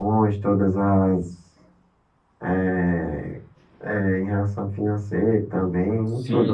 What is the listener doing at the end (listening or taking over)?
taking over